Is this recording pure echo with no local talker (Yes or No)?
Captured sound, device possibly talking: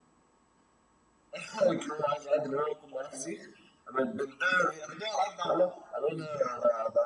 Yes